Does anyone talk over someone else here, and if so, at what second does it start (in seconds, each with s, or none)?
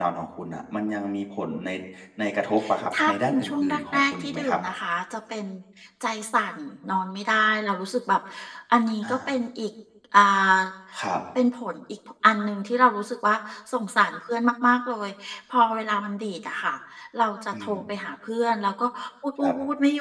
3.1 s